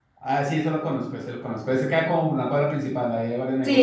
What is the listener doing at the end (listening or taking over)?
taking over